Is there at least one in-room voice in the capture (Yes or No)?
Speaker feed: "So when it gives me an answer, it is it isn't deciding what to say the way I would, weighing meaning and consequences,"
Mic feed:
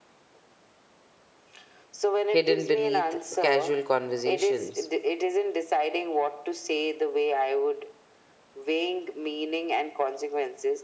Yes